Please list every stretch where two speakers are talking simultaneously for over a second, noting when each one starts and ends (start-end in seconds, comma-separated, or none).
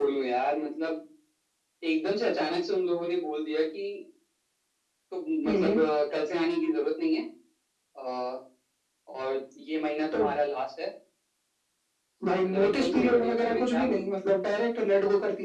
12.4-14.1